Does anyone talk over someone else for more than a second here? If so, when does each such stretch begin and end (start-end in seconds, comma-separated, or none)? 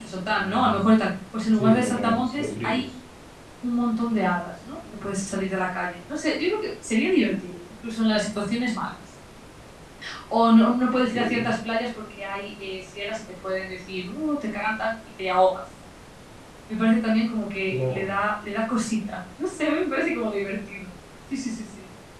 1.5-2.8